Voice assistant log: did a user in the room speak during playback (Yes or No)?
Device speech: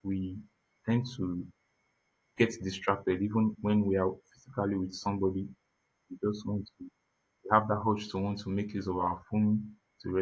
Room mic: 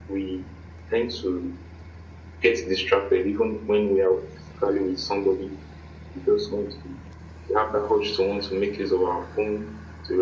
No